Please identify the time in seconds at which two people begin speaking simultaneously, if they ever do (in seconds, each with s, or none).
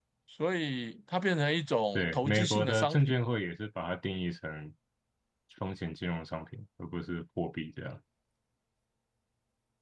1.9 s